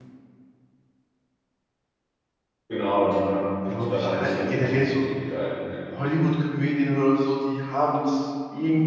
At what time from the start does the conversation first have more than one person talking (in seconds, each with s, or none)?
3.7 s